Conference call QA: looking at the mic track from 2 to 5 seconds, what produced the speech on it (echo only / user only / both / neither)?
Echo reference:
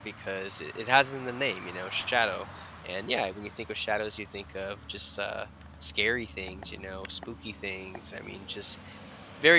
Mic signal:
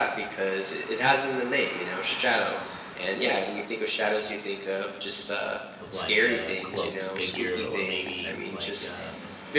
echo only